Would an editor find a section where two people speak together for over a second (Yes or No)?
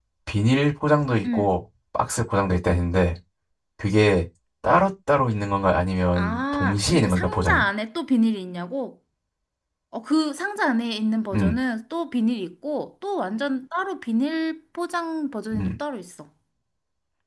Yes